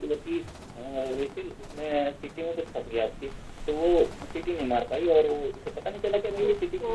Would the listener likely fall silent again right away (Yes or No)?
Yes